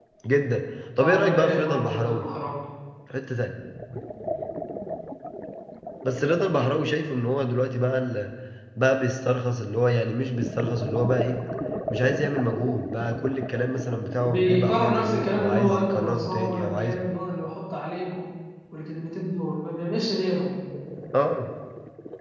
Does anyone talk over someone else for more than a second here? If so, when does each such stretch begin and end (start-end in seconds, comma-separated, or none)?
1.0-2.3, 14.2-16.9